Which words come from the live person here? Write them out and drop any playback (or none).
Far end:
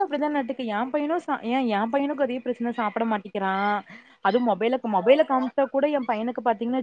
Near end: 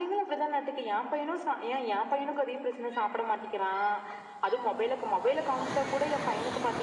none